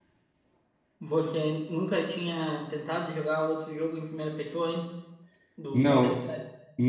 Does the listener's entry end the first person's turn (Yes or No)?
Yes